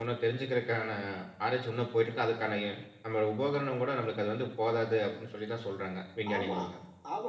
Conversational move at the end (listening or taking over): taking over